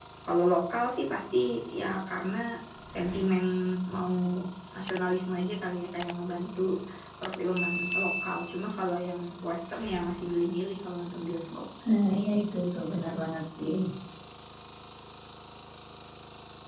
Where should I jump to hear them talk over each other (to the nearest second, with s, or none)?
none